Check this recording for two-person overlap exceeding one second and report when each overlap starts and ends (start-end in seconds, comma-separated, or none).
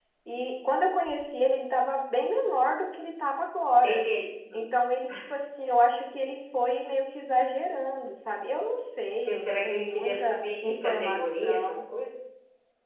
9.2-11.8